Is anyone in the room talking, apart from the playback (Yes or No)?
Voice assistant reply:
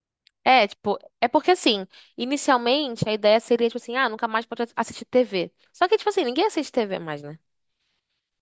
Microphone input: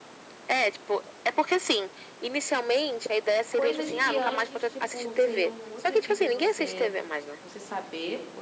Yes